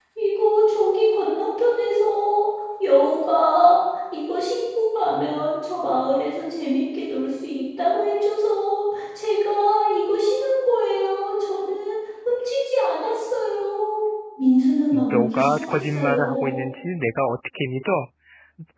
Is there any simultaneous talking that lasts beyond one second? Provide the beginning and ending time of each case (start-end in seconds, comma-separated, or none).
15.1-16.5